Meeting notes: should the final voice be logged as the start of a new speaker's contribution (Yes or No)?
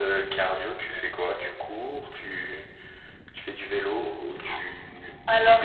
Yes